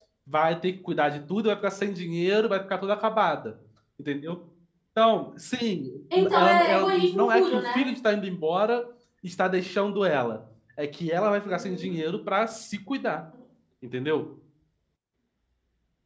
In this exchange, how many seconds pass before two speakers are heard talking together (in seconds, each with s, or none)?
6.3 s